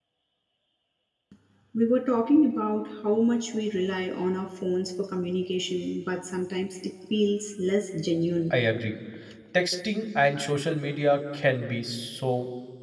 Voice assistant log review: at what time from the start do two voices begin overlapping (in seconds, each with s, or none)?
none